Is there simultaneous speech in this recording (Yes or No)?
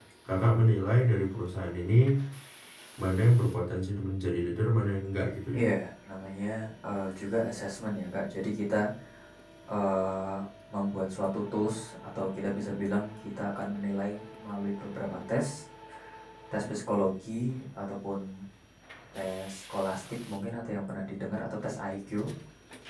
No